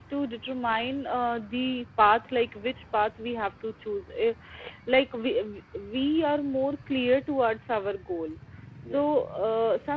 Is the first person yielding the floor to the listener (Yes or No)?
No